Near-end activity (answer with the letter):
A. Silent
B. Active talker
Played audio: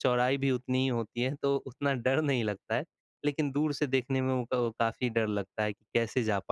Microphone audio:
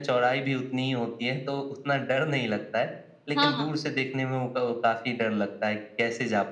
B